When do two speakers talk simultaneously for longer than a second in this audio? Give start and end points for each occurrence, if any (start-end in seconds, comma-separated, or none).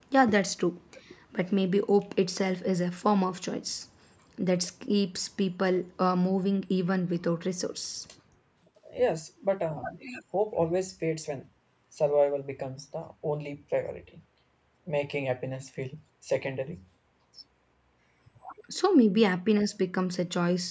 none